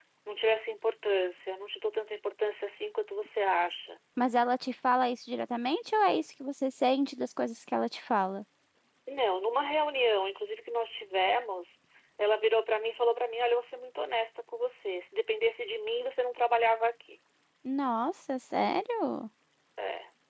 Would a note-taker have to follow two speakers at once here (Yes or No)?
No